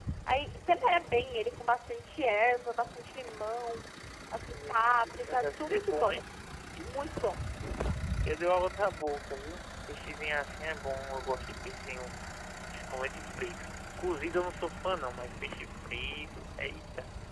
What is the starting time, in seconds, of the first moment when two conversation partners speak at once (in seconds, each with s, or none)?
4.5 s